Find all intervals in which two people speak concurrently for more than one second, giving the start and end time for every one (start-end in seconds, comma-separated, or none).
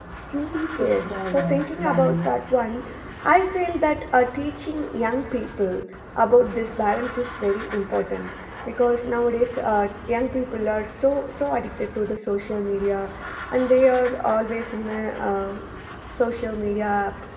0.8-2.3